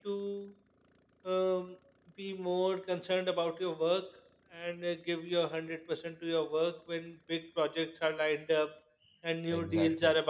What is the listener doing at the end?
listening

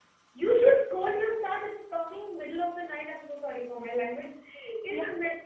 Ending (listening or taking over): listening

